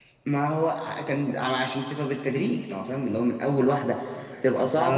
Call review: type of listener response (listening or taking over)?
taking over